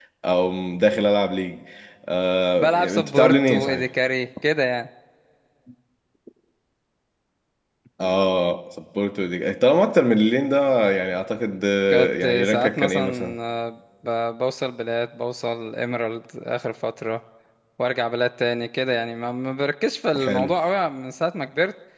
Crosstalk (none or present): present